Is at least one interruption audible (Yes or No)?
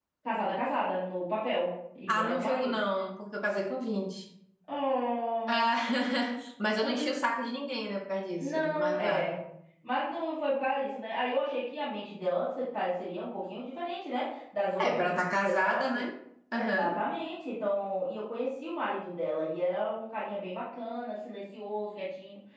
Yes